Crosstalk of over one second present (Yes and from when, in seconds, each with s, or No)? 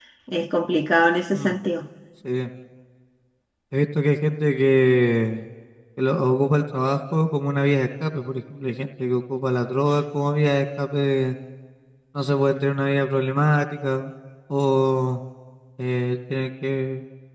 No